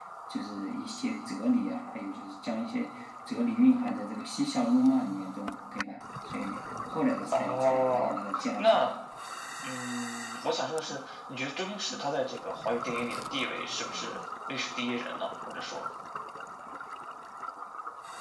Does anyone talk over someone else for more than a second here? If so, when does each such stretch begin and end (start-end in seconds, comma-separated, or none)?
7.3-8.8